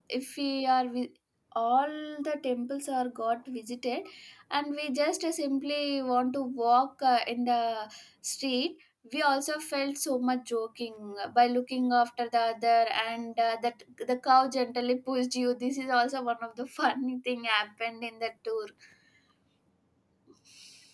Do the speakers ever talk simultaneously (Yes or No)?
No